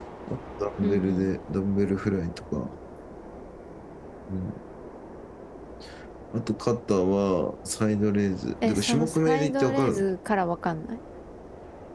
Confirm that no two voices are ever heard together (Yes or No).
No